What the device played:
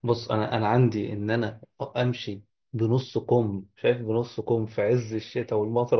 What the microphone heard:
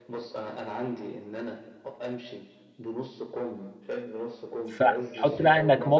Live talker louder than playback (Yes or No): Yes